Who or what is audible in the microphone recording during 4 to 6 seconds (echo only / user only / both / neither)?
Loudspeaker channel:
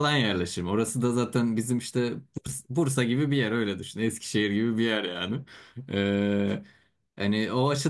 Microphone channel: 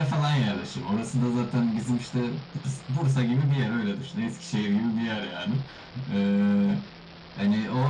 echo only